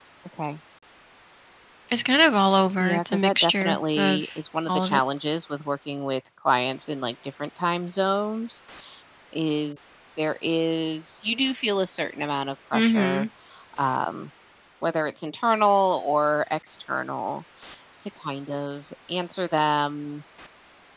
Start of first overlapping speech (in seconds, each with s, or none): 2.8 s